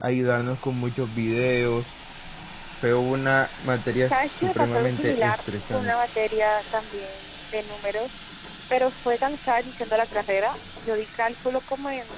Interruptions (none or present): present